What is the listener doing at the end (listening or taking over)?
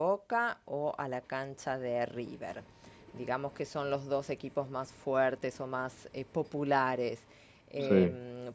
listening